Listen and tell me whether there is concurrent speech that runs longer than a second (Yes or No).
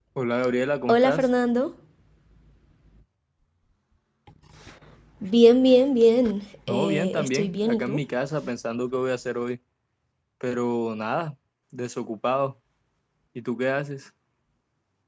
Yes